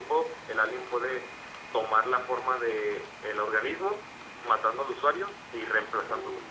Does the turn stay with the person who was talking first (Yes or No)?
Yes